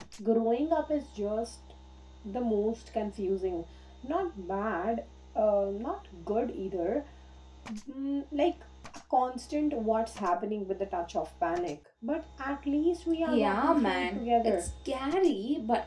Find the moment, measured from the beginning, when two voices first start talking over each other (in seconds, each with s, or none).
13.3 s